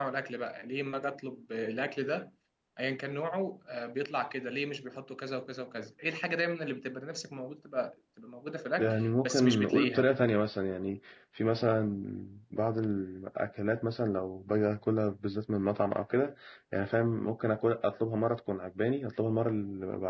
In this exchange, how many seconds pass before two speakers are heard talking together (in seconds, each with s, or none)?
8.8 s